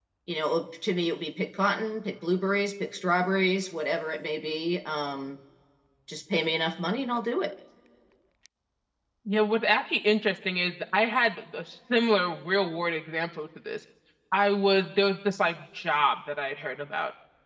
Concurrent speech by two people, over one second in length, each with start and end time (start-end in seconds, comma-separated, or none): none